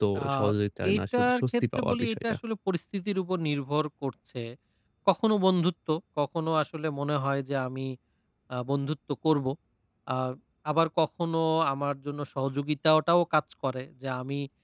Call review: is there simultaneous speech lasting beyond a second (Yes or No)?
Yes